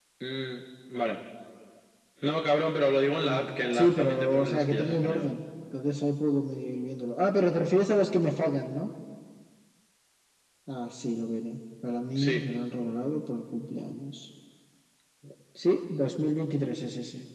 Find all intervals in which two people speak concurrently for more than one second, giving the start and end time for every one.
3.3-5.3

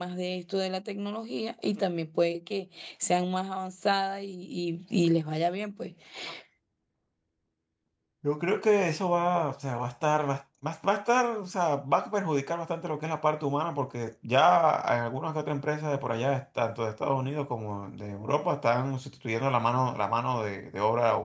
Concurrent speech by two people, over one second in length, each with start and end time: none

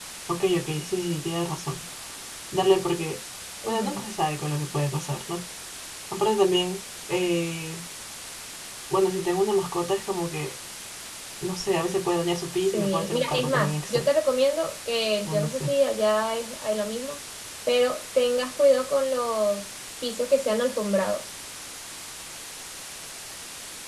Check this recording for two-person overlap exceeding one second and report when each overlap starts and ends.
12.6-14.1

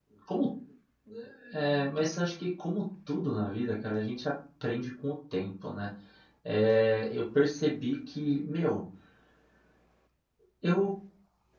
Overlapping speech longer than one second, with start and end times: none

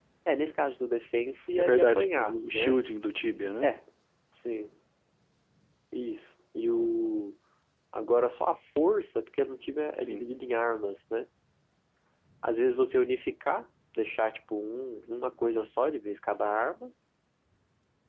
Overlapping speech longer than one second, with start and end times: 1.6-2.8

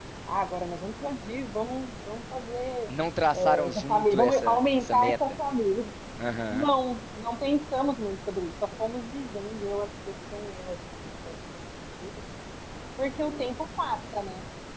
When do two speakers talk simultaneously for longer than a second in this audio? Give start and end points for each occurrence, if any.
3.4-5.2

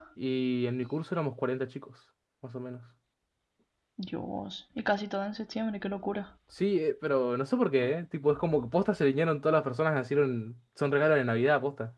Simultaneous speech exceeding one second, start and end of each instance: none

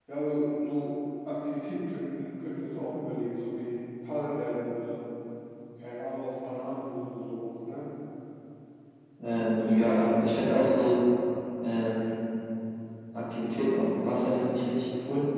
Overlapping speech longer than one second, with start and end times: 9.5-10.9

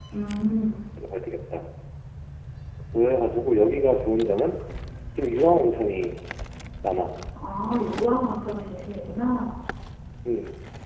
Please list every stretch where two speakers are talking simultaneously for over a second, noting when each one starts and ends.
none

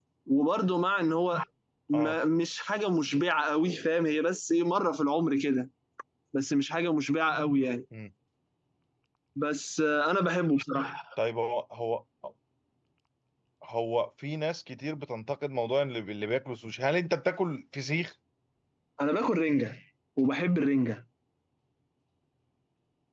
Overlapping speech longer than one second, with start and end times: none

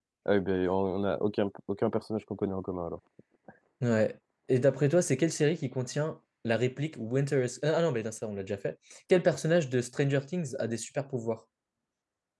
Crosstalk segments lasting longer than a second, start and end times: none

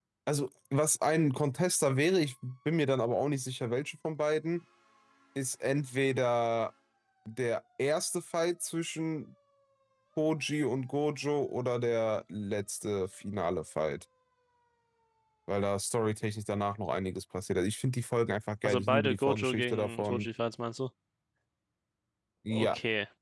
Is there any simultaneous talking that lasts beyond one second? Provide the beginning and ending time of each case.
18.6-20.3

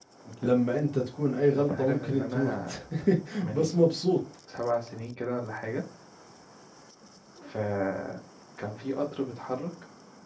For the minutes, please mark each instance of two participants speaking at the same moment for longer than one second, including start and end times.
1.5-2.8

